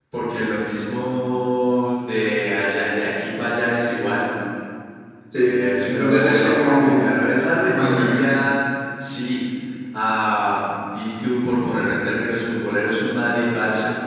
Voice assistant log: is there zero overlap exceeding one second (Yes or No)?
No